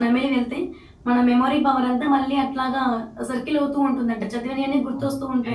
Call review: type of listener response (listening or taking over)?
taking over